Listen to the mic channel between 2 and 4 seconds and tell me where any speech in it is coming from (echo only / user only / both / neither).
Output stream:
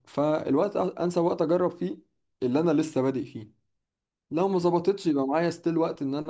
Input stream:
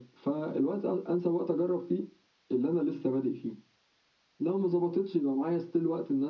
echo only